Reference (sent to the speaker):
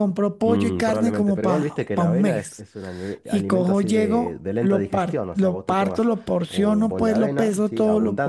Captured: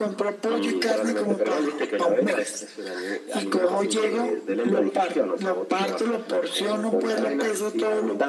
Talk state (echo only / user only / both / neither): echo only